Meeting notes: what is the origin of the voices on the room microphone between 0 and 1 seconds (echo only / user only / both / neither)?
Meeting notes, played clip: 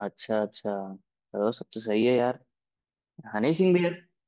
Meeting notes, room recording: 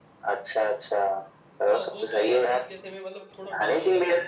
echo only